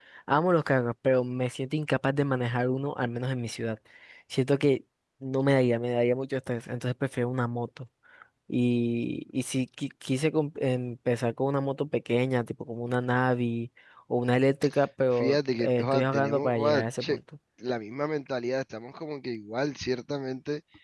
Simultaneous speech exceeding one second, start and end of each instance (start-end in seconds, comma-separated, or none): 15.1-17.2